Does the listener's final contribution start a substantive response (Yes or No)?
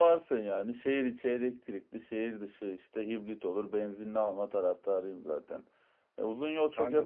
No